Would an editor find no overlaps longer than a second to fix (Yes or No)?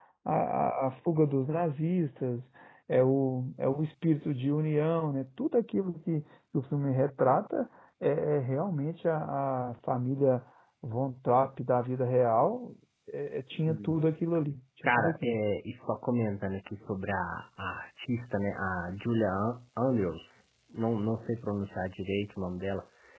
Yes